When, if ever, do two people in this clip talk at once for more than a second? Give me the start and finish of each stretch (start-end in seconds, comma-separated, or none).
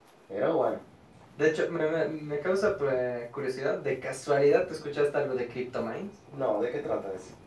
none